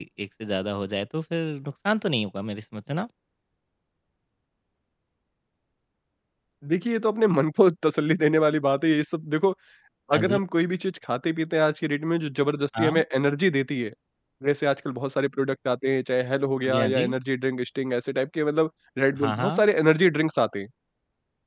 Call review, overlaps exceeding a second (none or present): none